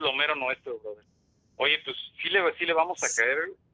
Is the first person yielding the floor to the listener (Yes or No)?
No